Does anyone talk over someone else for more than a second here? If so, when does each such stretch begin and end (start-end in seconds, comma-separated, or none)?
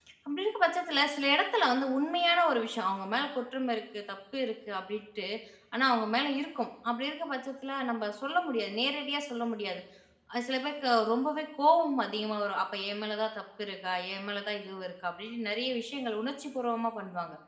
none